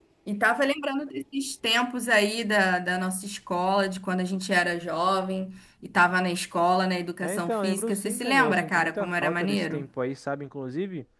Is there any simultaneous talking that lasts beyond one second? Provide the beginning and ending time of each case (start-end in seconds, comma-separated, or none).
7.2-9.8